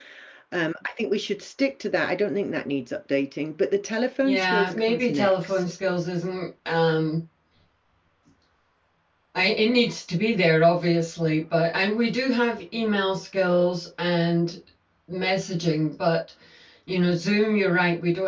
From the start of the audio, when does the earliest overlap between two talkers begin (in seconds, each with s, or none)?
4.2 s